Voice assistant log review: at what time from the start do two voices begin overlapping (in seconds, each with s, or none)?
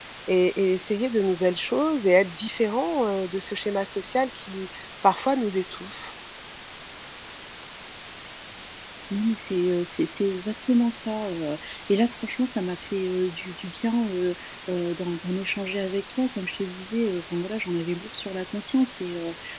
none